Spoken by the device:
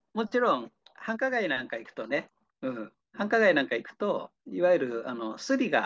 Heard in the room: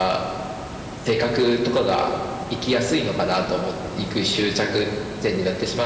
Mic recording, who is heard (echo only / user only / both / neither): user only